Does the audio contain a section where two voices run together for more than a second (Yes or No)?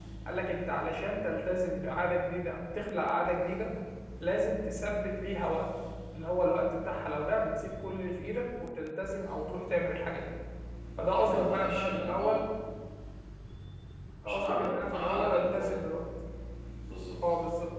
Yes